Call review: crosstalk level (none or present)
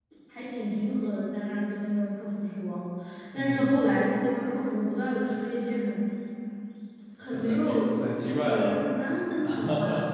present